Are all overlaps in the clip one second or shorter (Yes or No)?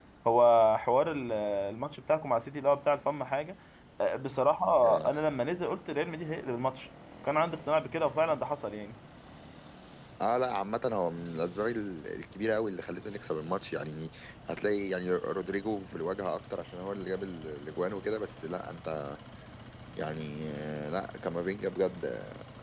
Yes